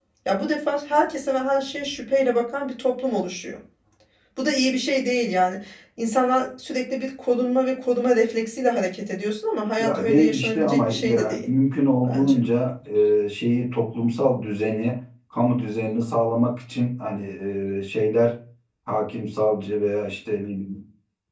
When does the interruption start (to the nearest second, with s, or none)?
10 s